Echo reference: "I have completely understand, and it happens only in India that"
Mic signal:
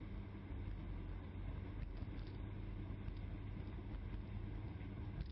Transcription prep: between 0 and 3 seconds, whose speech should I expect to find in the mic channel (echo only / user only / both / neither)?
neither